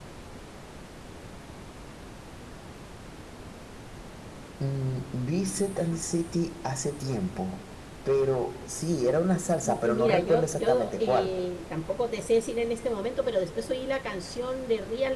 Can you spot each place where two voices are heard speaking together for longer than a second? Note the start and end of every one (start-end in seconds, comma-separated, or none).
9.6-11.3